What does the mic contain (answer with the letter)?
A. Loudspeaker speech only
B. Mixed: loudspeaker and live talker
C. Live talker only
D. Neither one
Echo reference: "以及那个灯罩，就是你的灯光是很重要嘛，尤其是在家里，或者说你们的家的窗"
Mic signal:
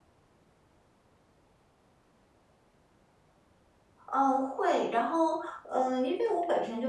C